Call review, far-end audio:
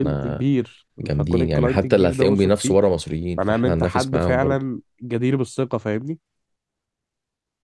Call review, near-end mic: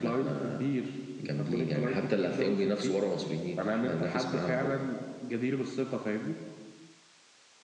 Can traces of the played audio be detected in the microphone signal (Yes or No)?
Yes